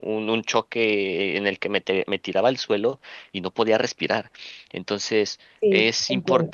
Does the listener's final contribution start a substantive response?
No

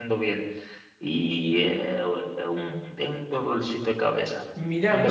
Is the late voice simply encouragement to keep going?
No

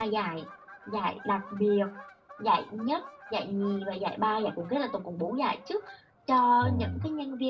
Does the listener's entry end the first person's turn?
No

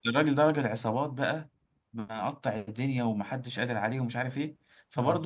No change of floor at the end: Yes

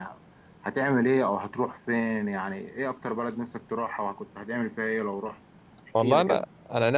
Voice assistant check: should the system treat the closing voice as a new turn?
Yes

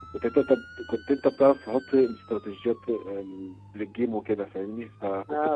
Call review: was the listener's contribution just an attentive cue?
No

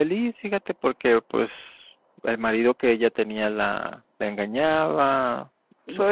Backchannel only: No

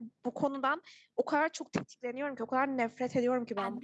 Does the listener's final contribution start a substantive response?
No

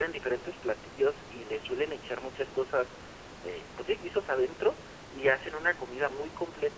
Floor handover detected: No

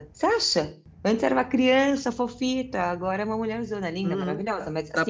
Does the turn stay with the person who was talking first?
No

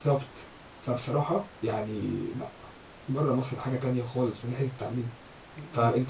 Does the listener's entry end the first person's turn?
No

